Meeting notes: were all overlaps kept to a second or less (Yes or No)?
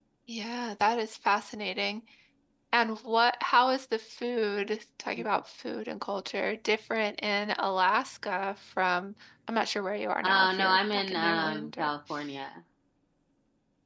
No